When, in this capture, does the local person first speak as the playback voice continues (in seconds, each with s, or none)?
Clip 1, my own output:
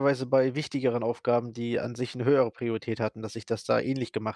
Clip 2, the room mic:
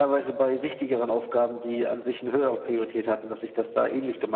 none